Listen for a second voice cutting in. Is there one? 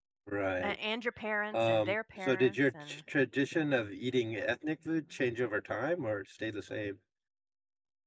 Yes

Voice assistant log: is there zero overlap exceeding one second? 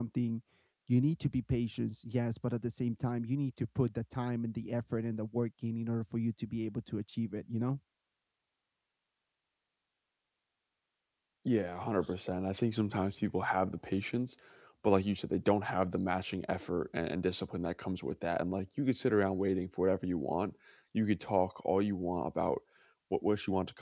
Yes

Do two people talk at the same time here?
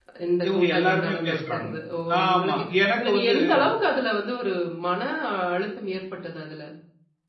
Yes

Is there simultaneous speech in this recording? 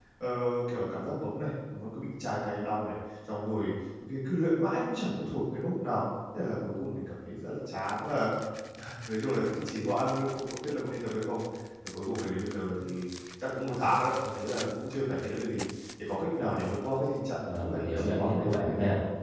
Yes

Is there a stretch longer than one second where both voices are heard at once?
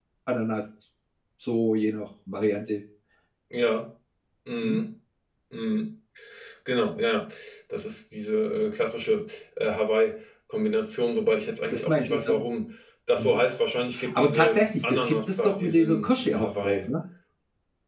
Yes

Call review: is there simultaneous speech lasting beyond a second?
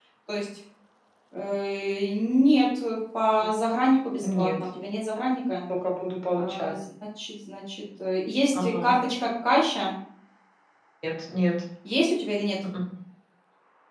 No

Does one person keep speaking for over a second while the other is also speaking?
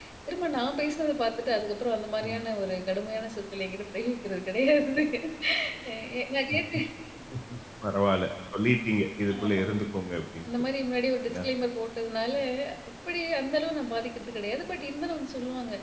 No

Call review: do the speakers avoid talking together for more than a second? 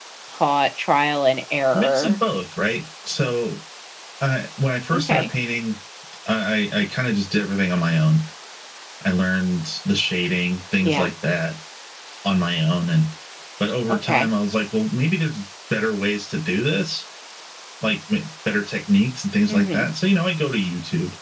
Yes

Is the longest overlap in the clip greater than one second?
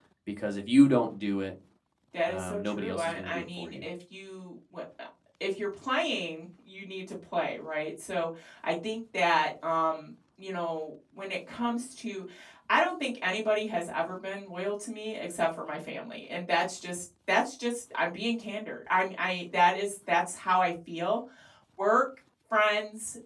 Yes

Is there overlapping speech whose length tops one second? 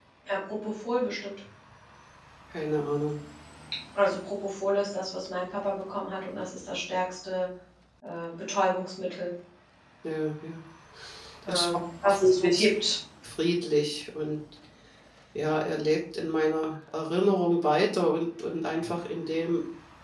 Yes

